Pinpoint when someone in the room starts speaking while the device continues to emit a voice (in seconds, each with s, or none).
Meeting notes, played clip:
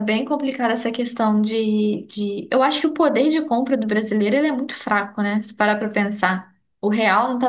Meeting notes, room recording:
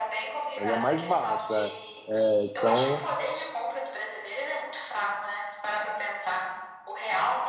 0.6 s